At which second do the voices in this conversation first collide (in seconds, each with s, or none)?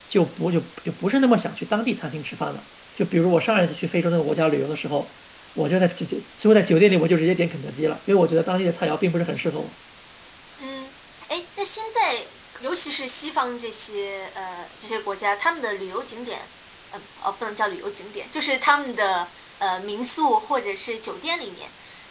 none